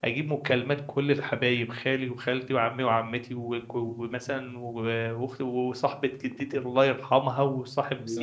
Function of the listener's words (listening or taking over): listening